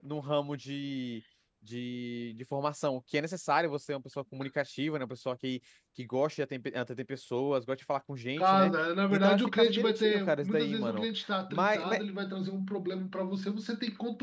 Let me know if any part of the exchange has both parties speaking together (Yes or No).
Yes